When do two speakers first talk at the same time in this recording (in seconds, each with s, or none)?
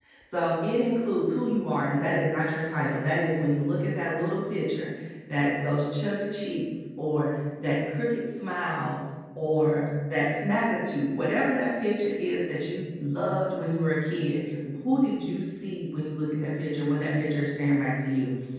none